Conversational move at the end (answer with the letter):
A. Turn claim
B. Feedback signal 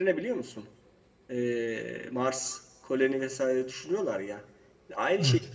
B